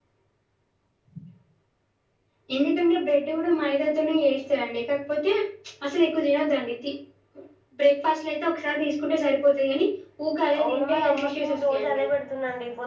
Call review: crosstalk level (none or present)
present